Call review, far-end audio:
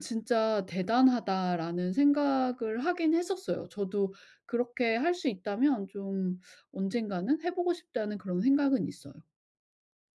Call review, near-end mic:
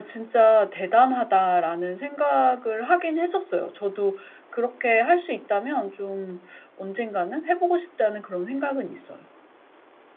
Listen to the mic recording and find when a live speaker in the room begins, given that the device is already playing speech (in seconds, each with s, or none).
none